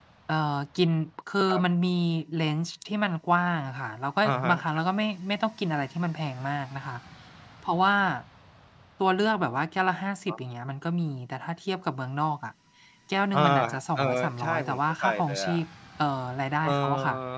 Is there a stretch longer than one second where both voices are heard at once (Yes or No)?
Yes